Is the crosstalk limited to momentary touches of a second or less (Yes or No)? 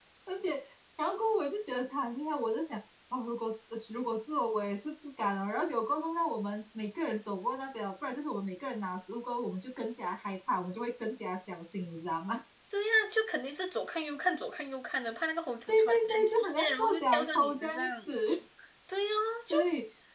No